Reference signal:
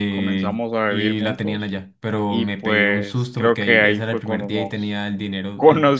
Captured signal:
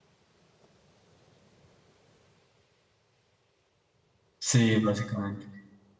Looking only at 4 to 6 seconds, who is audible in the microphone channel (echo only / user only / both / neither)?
user only